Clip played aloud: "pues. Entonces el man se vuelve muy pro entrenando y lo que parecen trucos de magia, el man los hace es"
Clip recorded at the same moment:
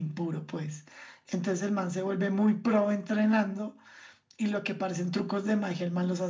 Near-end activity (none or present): none